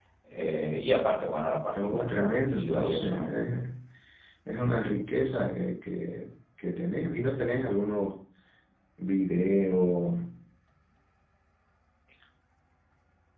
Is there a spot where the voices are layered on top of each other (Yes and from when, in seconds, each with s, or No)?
Yes, from 1.7 s